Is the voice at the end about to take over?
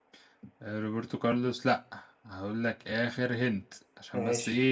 No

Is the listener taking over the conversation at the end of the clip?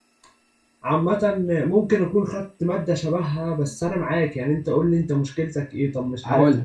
No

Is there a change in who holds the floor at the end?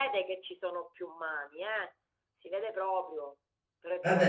Yes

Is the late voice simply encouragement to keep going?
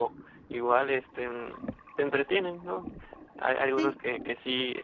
Yes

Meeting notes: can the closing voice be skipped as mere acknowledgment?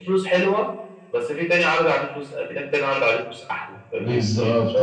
No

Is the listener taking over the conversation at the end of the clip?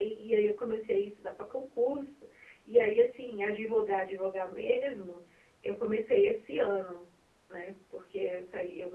No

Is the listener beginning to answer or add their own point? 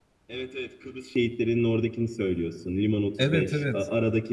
No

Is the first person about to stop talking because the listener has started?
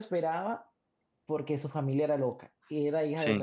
No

